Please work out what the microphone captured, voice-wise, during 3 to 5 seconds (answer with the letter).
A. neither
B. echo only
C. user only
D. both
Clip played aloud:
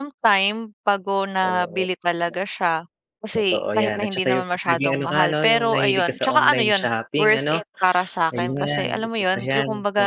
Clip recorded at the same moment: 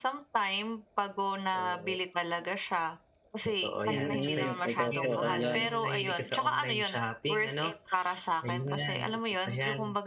D